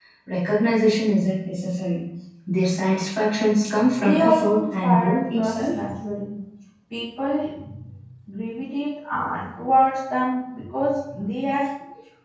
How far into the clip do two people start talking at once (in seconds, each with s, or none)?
3.8 s